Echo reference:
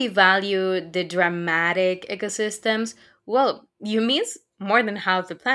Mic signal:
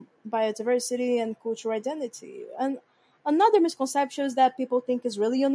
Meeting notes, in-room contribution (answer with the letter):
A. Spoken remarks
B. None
A